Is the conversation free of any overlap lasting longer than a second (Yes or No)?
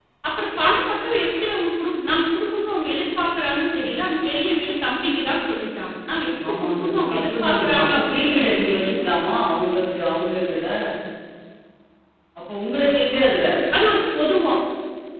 No